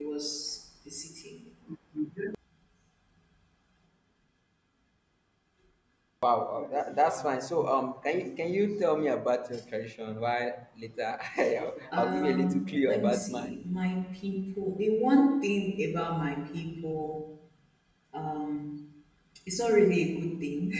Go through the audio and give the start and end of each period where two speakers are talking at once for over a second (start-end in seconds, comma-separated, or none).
11.9-13.5